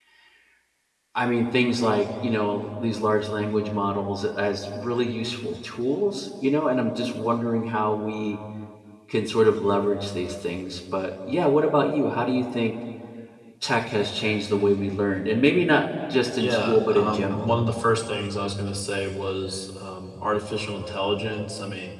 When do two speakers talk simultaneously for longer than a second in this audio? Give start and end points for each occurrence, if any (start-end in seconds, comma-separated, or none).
16.4-17.7